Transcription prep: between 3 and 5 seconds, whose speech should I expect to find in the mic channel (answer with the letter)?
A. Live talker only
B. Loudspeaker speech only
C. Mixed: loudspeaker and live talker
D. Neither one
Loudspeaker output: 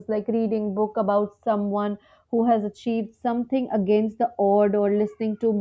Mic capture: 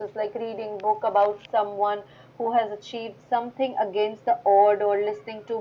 B